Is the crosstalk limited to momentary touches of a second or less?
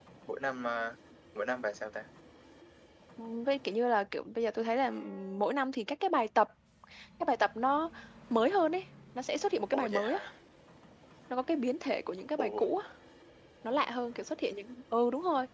Yes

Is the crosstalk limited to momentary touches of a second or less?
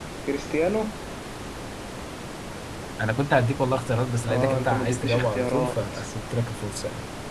No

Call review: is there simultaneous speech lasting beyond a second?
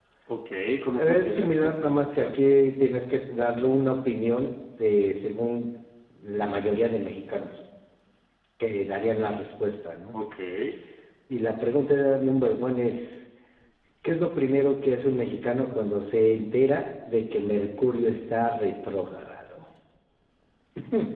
Yes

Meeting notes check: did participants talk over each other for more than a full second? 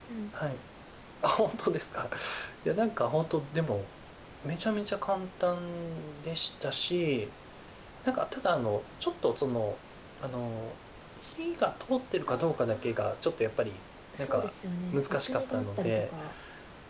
Yes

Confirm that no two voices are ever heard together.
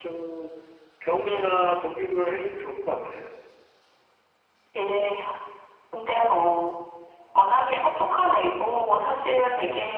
Yes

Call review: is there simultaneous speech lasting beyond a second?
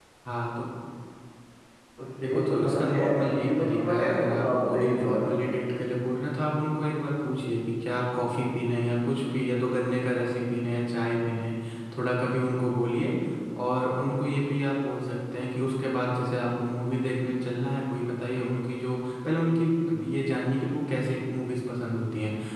Yes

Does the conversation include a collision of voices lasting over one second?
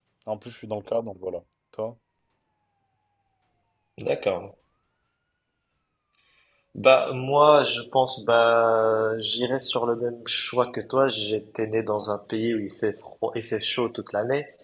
No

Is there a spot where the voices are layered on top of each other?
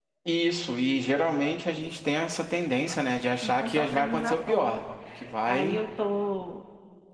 Yes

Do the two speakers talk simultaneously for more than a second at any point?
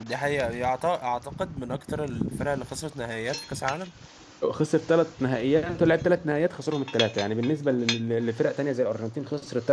No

